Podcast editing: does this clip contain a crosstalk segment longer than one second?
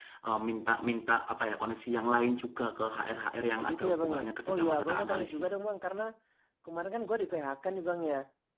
Yes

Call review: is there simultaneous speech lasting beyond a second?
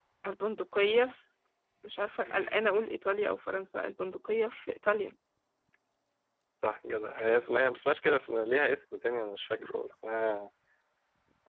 No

